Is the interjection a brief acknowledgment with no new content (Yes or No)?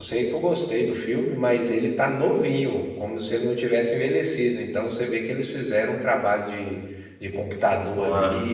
Yes